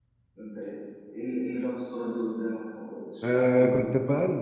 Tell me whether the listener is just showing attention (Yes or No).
No